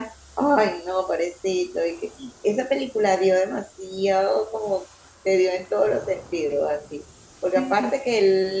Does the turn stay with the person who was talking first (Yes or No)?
Yes